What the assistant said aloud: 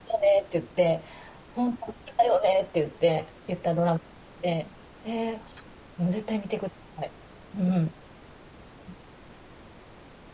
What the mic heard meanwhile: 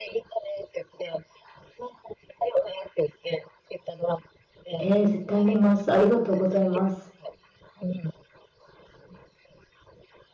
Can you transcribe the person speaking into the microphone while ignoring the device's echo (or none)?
えー、絶対見ます。ありがとうございます。